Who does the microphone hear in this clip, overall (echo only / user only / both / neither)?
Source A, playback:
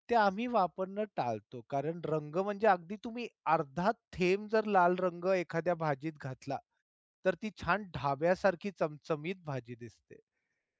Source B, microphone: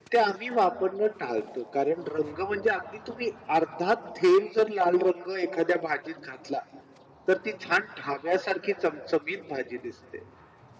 echo only